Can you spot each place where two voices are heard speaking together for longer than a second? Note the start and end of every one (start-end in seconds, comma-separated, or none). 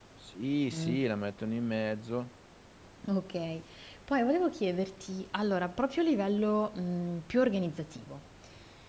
none